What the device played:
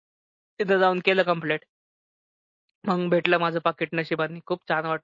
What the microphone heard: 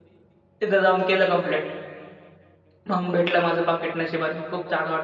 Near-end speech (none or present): none